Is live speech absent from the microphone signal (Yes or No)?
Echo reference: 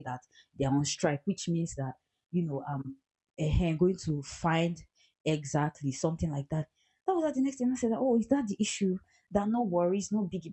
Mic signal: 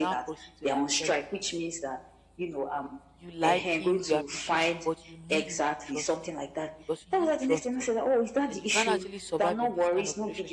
No